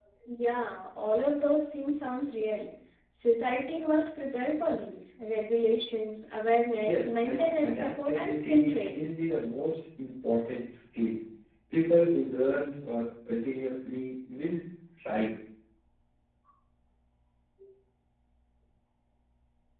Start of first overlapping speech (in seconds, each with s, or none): 6.8 s